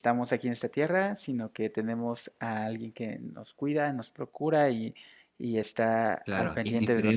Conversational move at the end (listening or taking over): taking over